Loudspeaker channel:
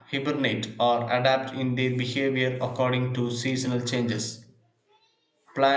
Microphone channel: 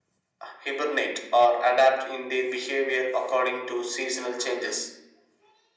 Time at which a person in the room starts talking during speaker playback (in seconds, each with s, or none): none